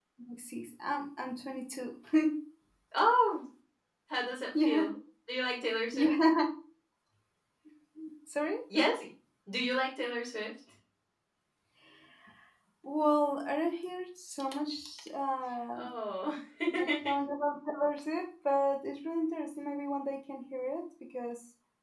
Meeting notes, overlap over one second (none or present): none